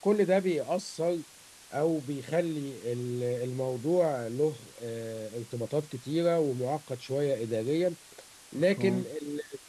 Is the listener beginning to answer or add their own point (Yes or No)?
No